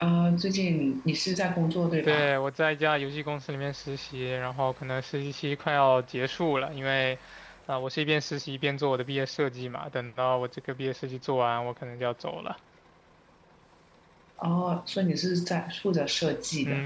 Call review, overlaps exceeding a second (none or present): none